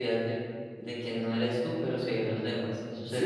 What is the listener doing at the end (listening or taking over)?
taking over